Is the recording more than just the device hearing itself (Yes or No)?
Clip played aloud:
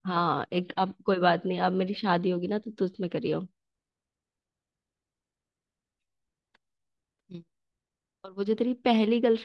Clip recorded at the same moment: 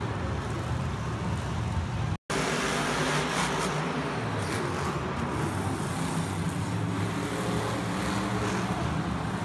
No